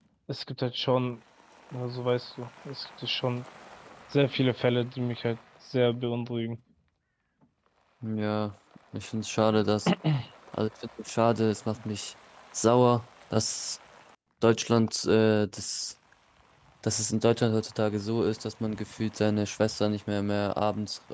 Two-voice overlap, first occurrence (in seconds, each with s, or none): none